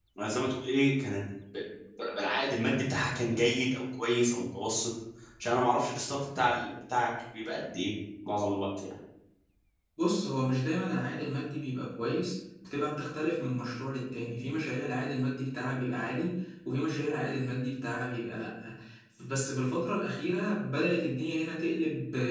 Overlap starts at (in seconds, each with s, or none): none